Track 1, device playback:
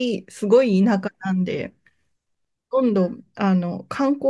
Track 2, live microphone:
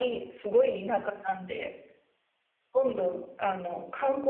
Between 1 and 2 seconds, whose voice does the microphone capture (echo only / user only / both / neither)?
echo only